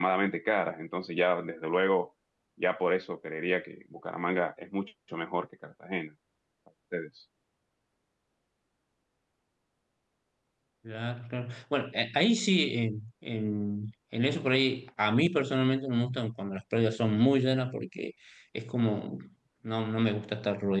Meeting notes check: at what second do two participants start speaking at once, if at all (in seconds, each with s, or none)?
none